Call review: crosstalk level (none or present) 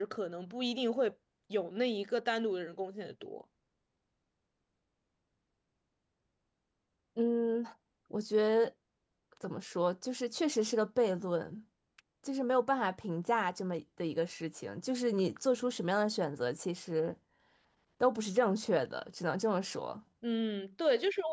none